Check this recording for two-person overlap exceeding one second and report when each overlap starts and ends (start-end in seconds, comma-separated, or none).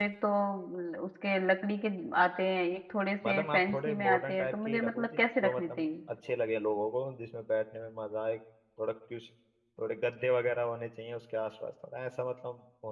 3.2-5.9